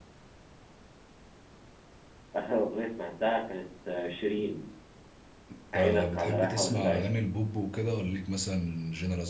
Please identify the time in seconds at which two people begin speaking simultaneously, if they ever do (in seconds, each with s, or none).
5.8 s